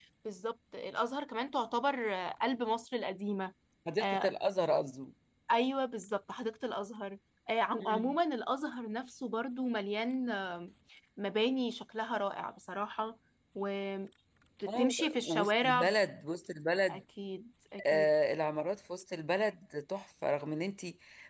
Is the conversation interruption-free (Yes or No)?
No